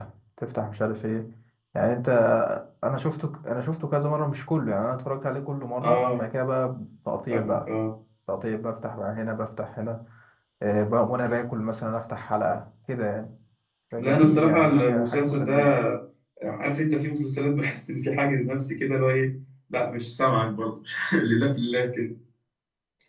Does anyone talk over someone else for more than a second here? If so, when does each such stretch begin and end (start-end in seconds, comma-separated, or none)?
14.0-15.7